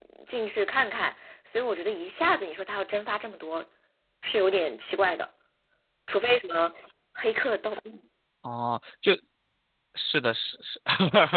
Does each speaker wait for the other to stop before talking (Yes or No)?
Yes